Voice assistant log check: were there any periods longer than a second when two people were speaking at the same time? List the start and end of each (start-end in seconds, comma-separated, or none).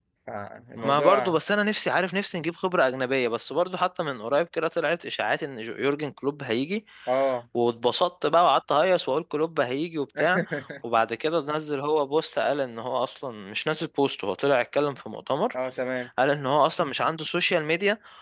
none